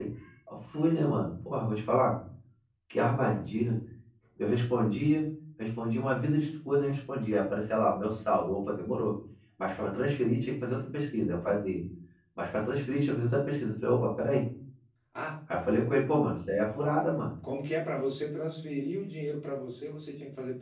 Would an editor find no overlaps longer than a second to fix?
Yes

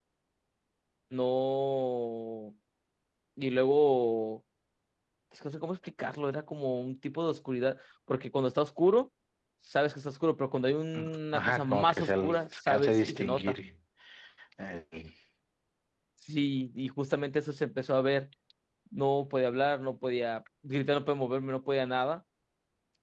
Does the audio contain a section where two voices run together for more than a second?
Yes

